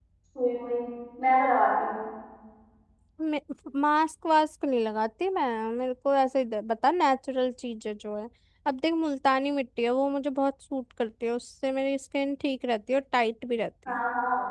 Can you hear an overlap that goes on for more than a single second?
No

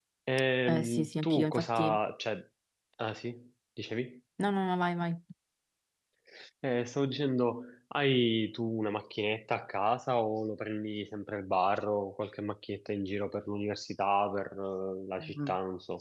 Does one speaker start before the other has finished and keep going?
Yes, from 0.7 s

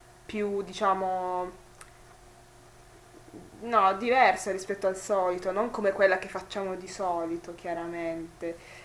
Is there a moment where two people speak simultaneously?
No

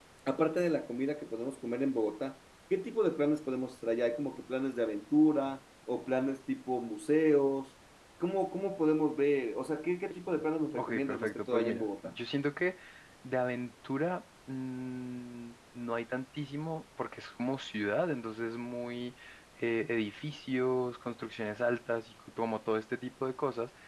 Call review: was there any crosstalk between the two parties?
Yes, from 10.8 s

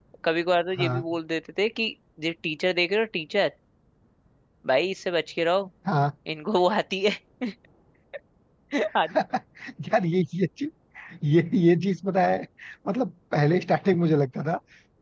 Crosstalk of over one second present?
No

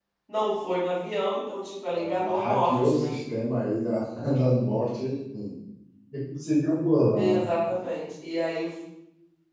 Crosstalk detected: Yes, from 1.9 s

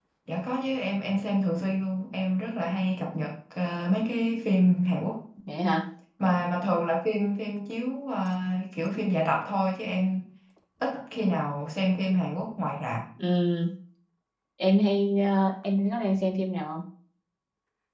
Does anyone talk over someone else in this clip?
No

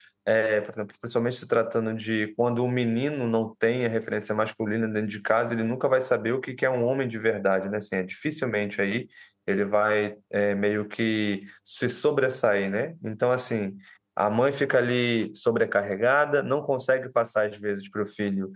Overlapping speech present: No

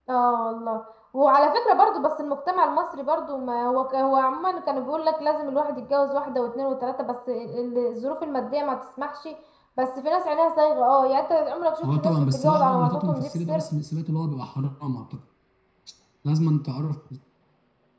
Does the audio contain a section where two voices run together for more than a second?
Yes, from 11.8 s

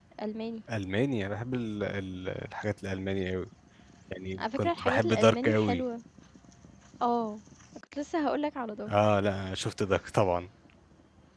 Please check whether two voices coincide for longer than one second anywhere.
Yes, from 4.4 s

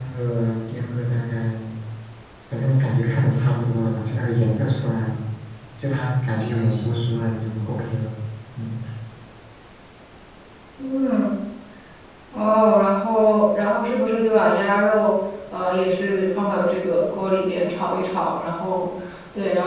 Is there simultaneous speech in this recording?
No

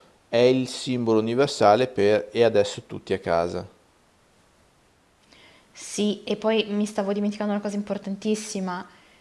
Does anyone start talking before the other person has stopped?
No

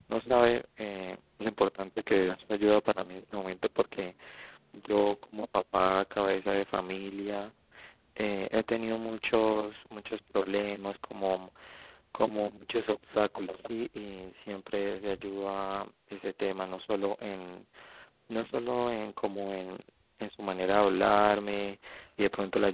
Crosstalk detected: No

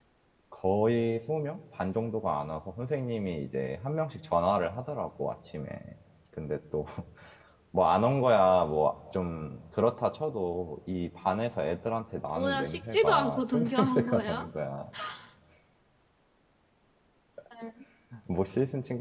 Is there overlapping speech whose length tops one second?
Yes, from 12.4 s

